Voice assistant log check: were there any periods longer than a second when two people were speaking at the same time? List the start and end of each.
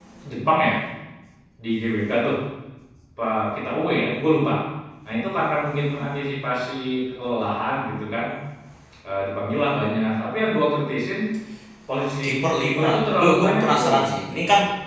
12.2-14.1

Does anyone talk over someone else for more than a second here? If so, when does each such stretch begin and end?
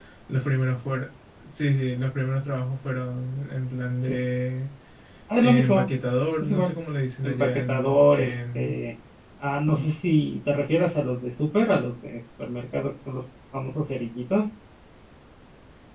7.2-8.8

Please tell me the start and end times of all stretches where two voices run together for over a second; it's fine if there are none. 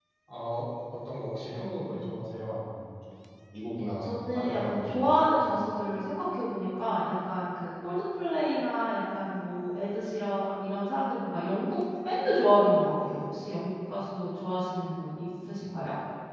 4.0-5.4

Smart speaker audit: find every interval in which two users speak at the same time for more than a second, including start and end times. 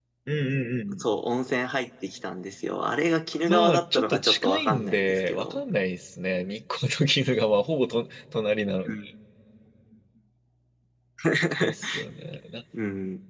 3.5-5.6

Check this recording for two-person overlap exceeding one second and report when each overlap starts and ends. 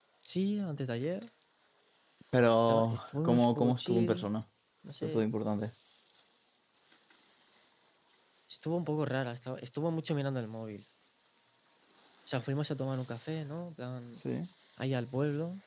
2.7-4.3

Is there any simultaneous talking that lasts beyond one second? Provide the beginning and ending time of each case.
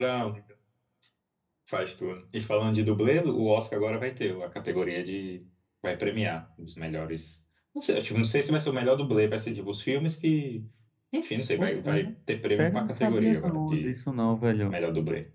12.6-13.9

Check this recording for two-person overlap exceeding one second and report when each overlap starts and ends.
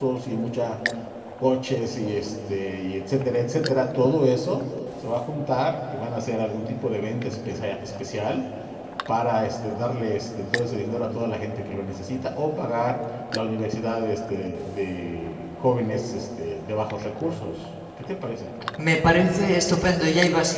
none

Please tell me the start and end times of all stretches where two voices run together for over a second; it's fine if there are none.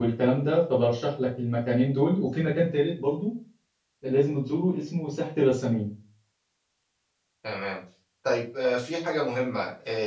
none

